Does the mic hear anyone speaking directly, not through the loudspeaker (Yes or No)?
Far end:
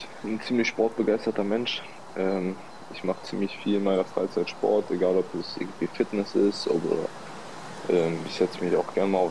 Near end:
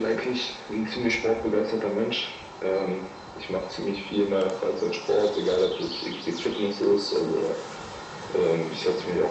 No